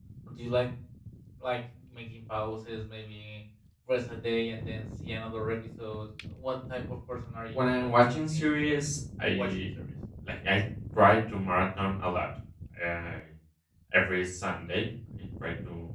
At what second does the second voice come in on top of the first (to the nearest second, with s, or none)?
8 s